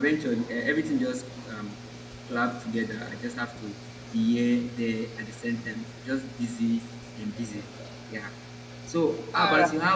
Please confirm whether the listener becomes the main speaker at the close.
No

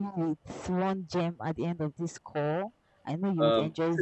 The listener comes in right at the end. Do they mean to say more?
Yes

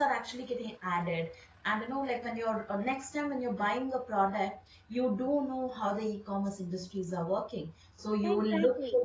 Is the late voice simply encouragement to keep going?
Yes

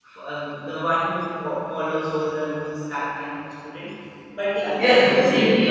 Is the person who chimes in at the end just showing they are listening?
No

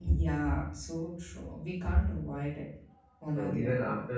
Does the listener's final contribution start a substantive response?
Yes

